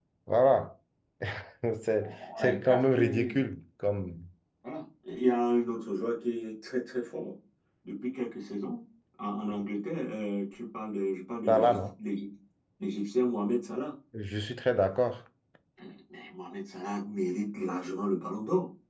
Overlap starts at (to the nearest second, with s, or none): 2 s